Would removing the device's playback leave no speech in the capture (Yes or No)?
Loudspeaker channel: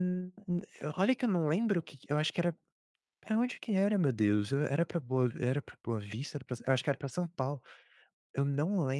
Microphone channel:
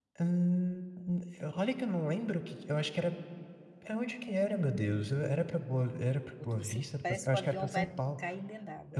No